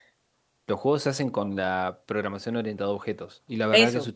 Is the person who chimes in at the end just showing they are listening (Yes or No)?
Yes